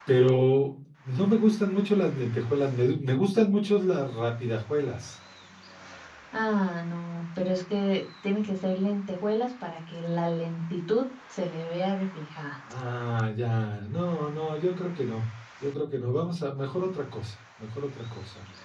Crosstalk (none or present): none